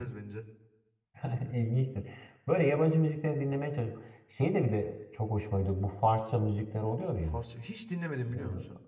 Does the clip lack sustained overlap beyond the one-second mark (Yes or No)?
Yes